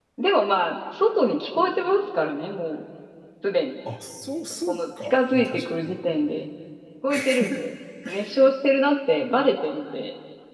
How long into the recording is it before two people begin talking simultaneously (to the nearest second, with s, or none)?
5 s